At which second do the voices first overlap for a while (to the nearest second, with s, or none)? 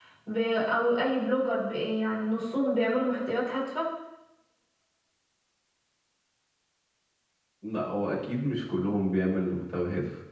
none